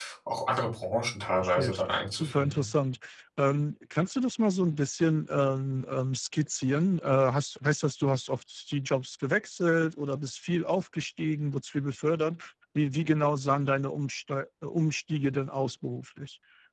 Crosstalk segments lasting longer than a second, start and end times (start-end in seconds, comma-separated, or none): 1.4-2.6